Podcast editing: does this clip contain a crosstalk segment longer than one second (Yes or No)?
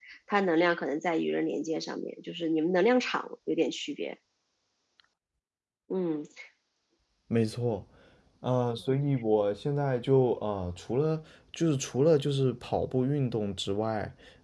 No